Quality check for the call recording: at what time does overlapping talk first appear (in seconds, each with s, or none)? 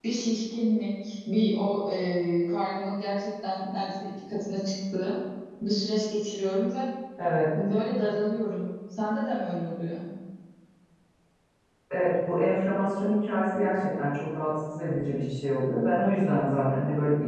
none